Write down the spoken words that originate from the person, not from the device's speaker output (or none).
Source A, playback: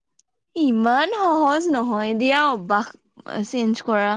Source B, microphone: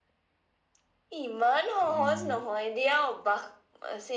উম